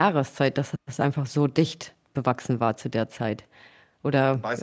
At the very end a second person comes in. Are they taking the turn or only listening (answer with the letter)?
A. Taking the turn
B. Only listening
A